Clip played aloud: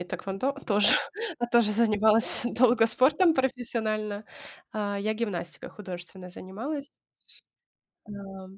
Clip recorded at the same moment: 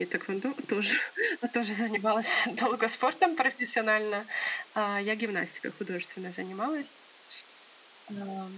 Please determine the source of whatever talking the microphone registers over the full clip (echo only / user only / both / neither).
echo only